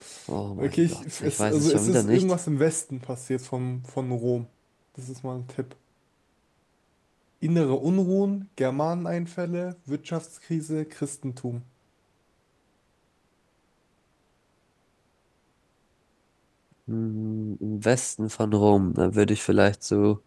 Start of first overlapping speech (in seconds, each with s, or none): 0.6 s